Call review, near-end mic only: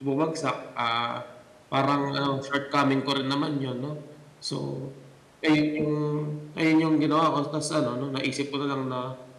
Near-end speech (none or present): present